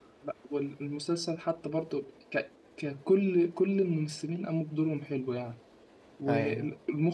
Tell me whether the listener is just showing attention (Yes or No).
Yes